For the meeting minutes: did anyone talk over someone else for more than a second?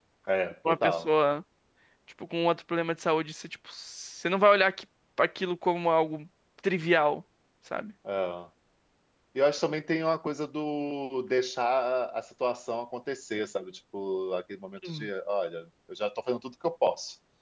No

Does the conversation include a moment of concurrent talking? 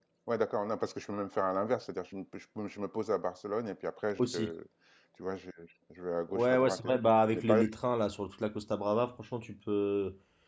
Yes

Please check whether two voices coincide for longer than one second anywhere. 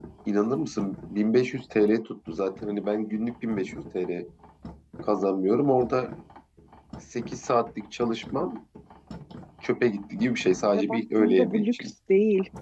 Yes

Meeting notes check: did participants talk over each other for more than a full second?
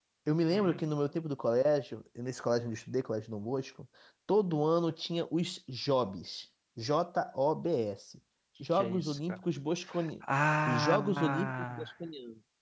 Yes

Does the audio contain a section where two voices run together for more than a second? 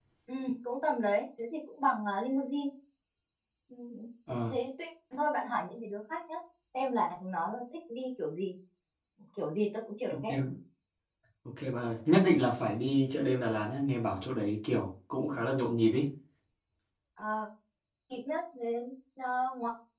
No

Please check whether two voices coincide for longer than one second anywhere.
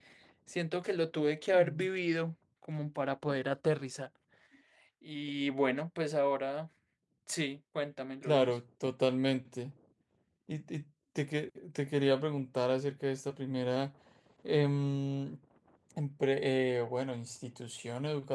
No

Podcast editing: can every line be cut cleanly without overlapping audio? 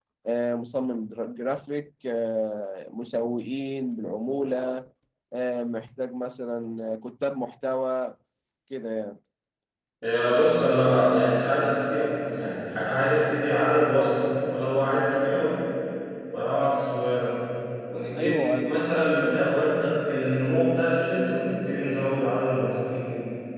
No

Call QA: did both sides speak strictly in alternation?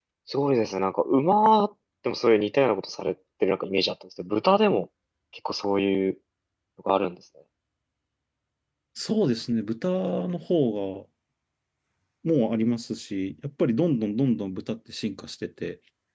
Yes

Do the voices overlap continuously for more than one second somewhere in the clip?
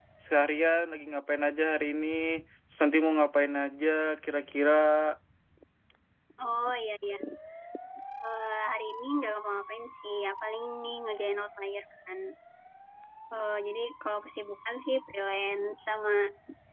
No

